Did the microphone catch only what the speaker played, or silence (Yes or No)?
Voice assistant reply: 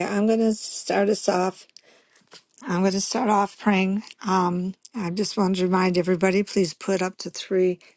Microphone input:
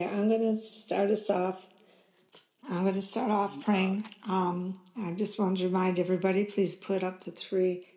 No